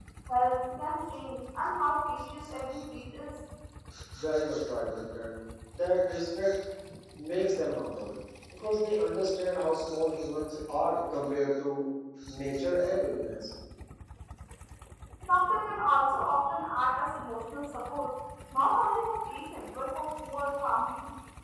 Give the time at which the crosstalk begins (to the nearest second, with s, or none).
none